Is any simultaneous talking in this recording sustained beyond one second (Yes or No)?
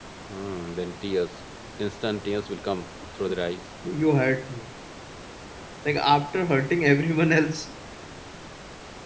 No